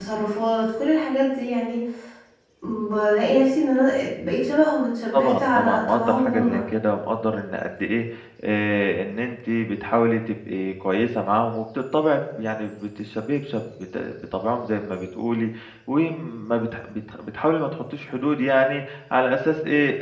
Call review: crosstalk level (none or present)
present